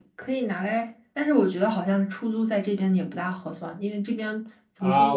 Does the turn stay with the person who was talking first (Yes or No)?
No